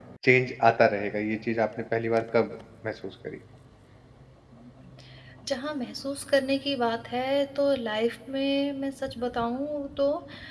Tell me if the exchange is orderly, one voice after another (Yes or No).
Yes